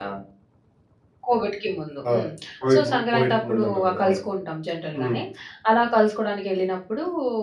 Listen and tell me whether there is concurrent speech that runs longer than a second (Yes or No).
Yes